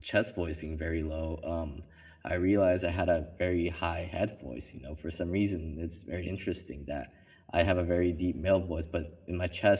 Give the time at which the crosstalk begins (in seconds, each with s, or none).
none